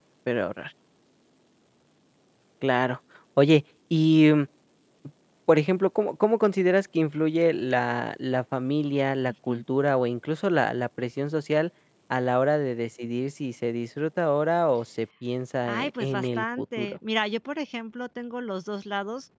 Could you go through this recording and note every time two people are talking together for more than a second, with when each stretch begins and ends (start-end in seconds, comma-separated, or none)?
15.6-17.0